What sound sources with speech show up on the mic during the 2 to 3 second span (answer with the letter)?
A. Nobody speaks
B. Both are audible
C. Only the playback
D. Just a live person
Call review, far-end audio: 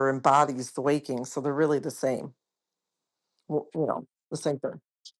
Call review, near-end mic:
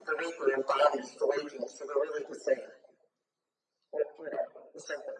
C